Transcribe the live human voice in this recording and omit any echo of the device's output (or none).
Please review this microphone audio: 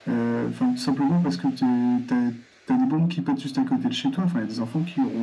none